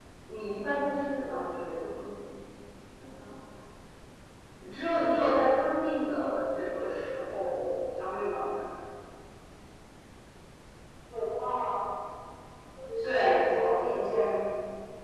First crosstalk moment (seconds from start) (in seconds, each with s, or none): 13.0 s